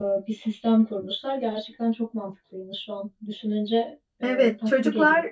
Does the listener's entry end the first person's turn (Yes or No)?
Yes